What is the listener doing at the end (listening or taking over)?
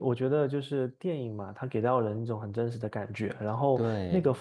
listening